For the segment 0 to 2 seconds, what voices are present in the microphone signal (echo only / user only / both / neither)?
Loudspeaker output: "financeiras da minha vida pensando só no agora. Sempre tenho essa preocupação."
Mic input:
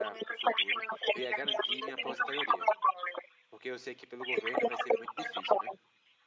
both